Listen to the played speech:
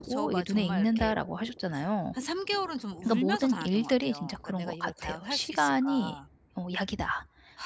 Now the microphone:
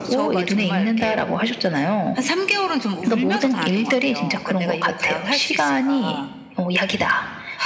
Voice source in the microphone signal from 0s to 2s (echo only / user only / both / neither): echo only